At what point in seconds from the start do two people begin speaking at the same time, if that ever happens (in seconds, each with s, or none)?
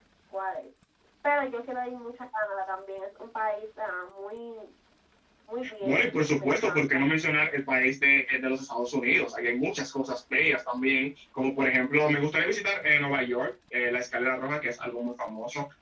5.8 s